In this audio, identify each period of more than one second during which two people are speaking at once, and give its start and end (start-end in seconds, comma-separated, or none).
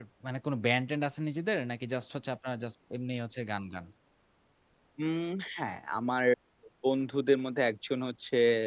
none